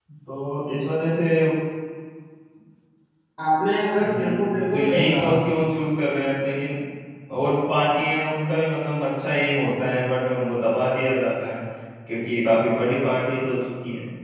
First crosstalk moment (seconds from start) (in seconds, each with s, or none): 4.0 s